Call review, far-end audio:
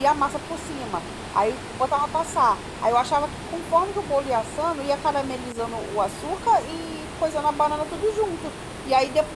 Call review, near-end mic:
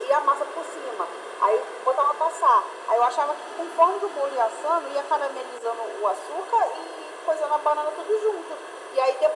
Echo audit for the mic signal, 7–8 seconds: echo only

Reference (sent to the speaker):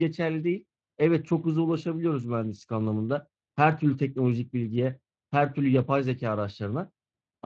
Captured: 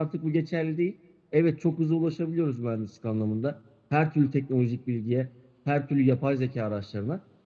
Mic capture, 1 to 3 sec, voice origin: echo only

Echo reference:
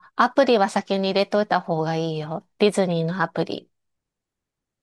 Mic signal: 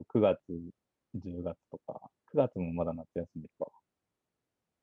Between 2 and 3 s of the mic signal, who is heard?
user only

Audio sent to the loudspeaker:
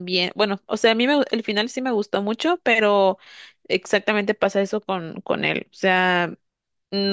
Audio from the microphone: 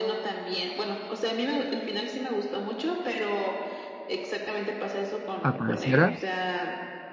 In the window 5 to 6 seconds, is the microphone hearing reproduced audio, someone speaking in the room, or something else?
both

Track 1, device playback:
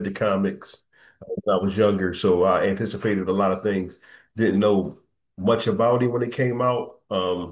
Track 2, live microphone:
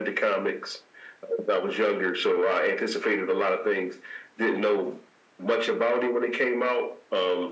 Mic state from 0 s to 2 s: echo only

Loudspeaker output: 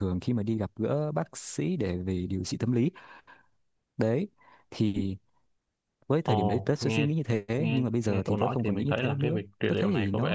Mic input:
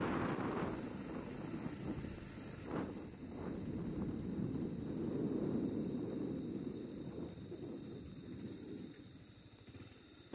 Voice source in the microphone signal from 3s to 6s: neither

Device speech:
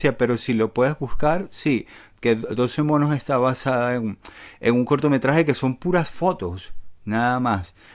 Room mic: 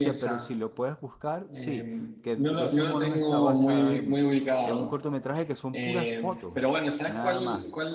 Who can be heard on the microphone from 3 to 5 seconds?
both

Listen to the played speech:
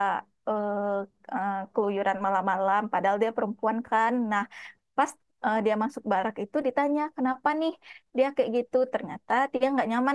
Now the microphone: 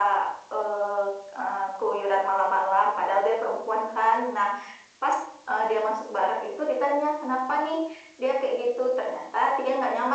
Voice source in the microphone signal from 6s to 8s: echo only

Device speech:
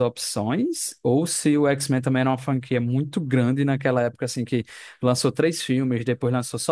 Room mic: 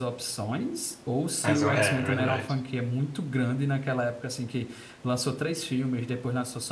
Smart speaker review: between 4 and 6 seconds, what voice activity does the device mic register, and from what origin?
echo only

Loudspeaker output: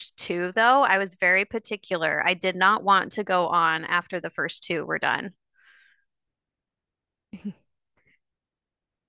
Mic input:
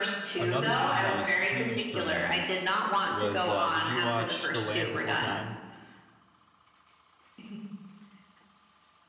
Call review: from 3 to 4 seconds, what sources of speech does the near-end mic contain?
both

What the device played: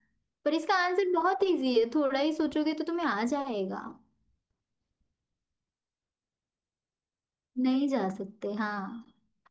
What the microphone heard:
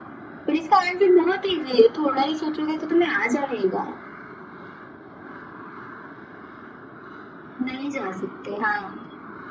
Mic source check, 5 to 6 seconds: neither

